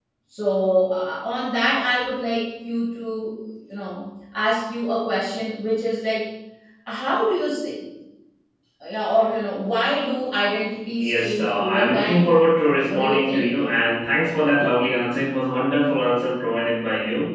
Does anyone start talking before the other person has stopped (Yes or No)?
Yes